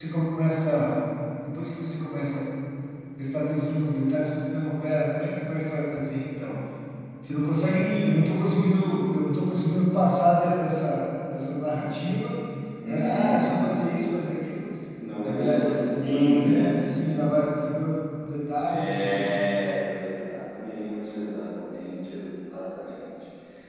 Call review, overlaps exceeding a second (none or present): present